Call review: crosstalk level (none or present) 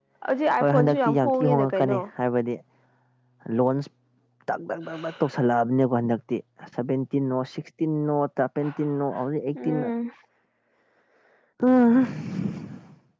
present